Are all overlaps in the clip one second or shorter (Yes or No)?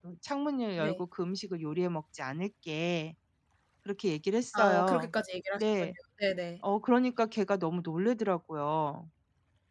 Yes